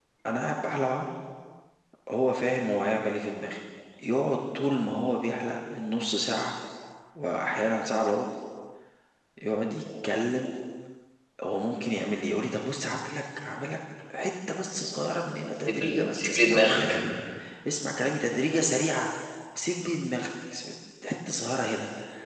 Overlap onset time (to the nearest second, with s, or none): 16 s